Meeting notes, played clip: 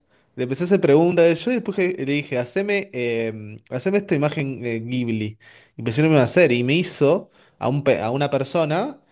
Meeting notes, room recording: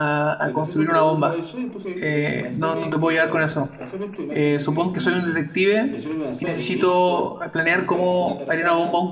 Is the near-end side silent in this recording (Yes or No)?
No